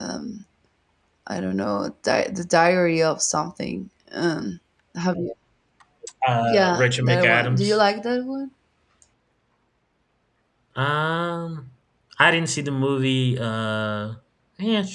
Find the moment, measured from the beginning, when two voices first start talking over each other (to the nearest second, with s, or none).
6 s